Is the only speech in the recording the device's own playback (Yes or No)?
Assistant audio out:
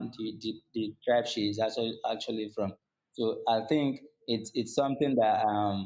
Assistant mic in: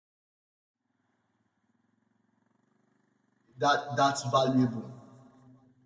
No